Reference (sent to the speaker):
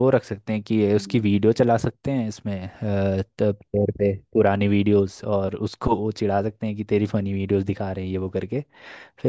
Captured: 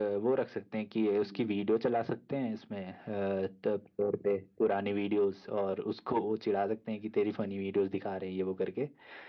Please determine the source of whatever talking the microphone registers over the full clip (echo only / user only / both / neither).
echo only